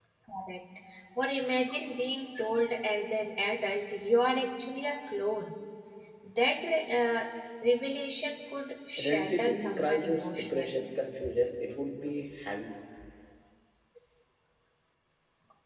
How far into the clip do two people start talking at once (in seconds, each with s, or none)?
9.0 s